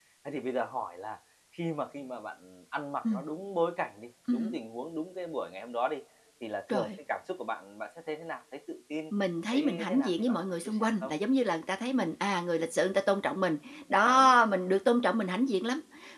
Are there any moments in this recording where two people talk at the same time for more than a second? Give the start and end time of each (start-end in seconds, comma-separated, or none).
9.5-11.1